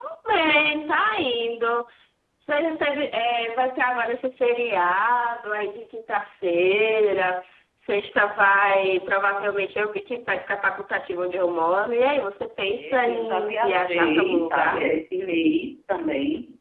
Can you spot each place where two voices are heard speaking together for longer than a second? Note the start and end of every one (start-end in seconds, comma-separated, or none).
12.7-14.9